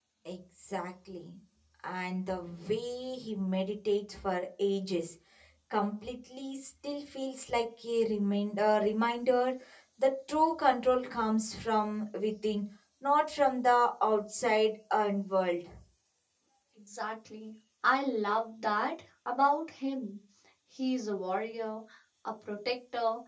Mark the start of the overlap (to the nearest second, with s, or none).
none